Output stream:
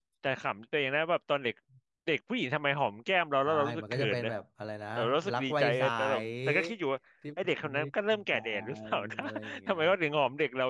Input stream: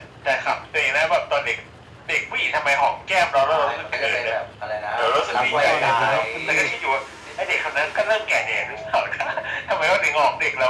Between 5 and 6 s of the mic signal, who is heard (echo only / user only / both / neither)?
both